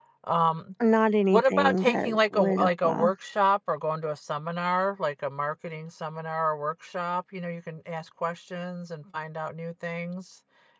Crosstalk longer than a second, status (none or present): present